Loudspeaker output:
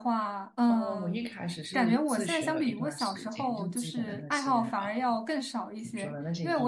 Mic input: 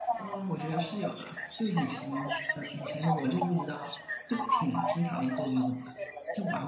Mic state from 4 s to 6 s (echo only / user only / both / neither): both